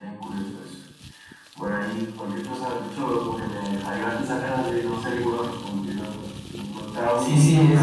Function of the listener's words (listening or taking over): taking over